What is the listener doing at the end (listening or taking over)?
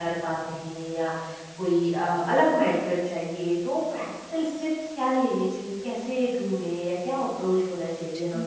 taking over